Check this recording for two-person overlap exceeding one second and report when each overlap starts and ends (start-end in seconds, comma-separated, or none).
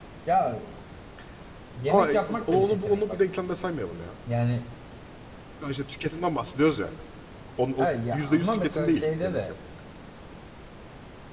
1.9-3.2, 7.8-9.4